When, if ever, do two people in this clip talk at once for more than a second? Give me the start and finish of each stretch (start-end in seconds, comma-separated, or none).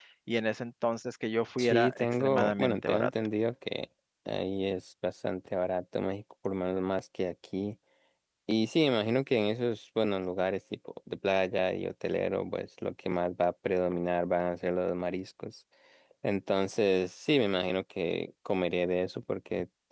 1.6-3.1